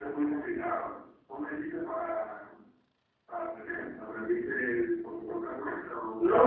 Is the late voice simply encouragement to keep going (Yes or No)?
No